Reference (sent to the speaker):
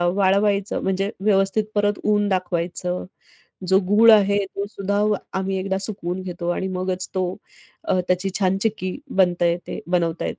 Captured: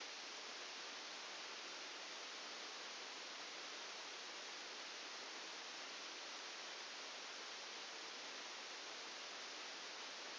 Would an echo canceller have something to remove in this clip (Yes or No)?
No